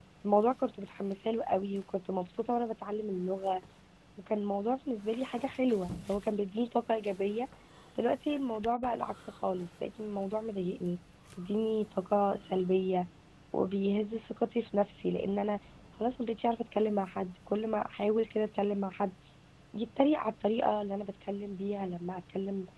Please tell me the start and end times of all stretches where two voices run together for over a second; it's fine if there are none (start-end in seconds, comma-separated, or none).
none